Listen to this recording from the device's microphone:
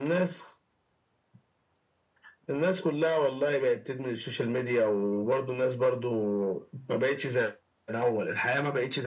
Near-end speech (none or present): none